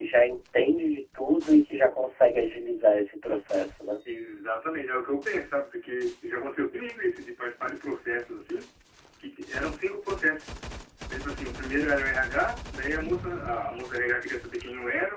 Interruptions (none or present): none